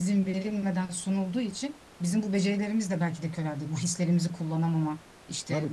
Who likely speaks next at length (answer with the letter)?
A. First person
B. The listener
B